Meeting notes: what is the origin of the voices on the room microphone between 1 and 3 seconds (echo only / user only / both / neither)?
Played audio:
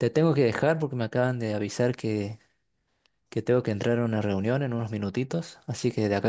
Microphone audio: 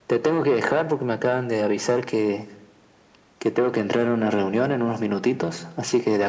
echo only